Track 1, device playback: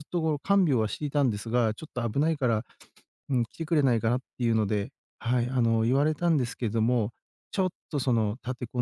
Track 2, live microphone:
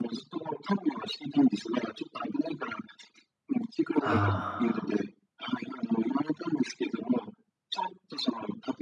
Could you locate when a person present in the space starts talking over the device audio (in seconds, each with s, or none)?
4.0 s